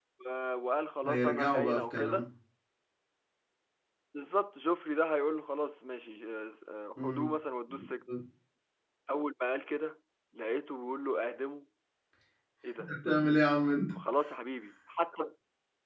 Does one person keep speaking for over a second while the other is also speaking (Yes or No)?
Yes